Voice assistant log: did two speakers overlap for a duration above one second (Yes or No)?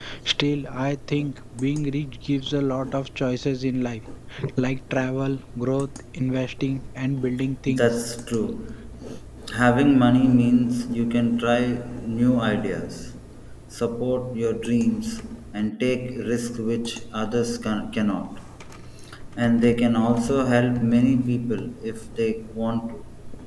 No